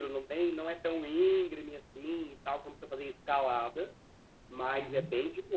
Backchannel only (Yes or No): Yes